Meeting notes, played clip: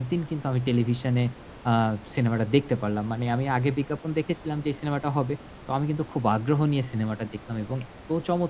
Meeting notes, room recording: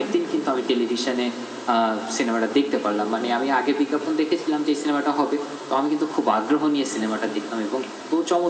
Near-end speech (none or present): none